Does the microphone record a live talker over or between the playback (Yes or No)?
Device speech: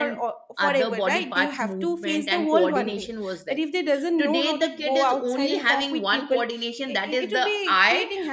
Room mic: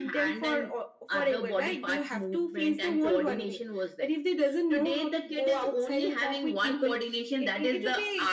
No